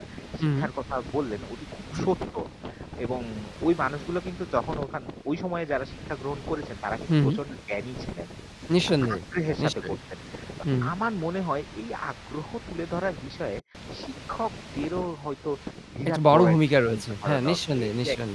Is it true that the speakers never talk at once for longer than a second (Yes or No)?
No